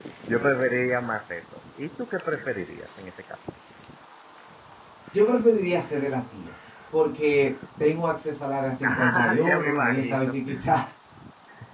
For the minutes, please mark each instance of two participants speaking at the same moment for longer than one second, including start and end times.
8.8-10.4

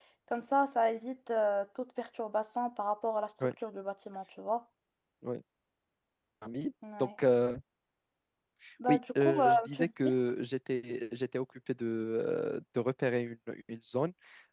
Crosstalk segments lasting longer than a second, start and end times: 8.9-10.1

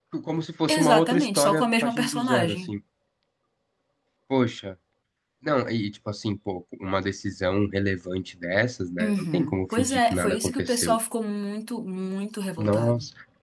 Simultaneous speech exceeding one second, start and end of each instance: 0.7-2.6, 9.0-11.0

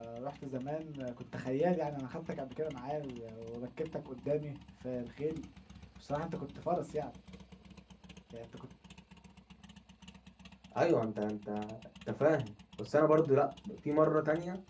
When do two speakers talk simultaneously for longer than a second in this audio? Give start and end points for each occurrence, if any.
none

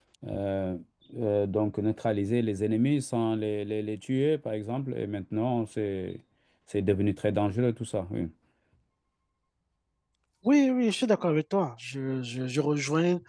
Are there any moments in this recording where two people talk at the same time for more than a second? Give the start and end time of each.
none

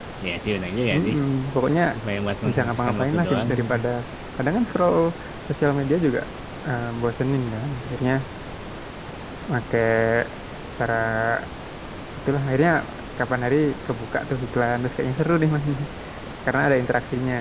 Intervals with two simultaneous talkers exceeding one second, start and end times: 2.5-3.8

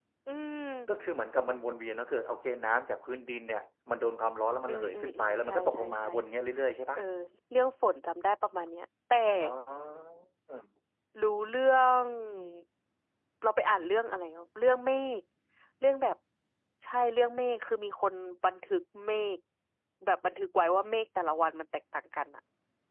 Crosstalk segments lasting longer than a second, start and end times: 4.7-6.1

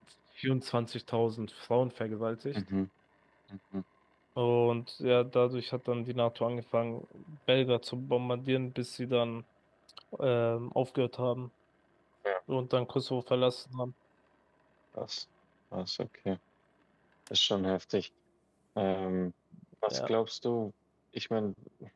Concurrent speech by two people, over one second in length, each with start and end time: none

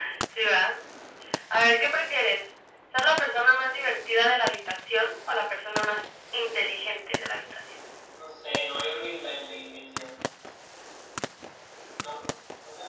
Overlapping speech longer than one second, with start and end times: none

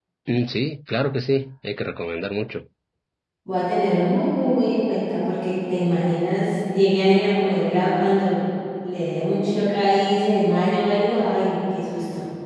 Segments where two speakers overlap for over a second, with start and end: none

